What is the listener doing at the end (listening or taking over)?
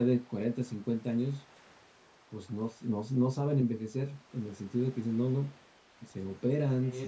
taking over